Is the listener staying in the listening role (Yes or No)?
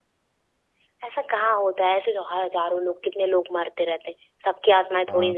No